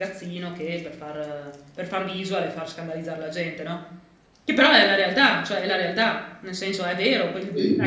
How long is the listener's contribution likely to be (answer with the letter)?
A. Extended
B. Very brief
B